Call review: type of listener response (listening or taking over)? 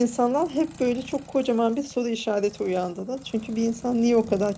listening